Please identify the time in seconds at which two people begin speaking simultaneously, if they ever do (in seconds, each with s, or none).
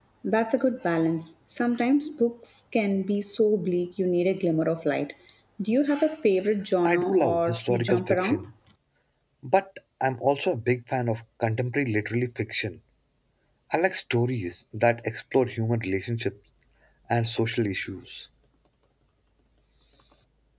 6.8 s